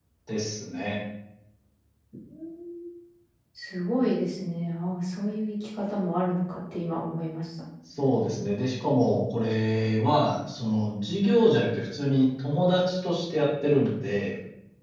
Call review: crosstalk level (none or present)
none